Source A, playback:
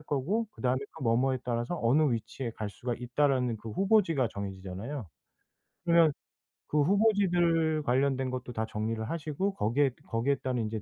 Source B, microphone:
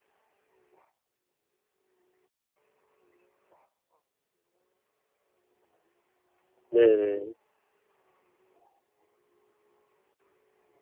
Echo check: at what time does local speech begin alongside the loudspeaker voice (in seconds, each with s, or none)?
6.7 s